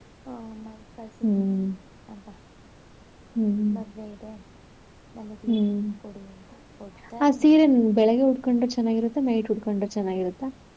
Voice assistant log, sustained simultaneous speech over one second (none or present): none